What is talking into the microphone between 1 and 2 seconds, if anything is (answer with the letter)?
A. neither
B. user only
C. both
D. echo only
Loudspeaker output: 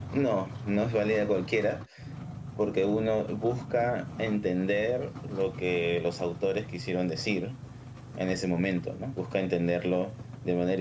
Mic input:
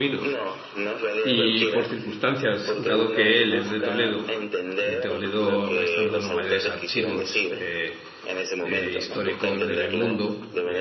C